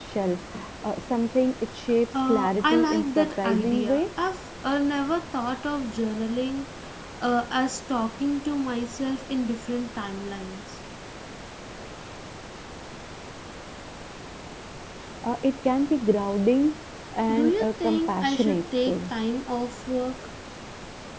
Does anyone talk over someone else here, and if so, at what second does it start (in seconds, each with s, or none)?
2.3 s